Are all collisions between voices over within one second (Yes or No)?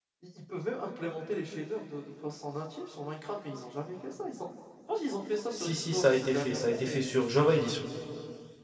No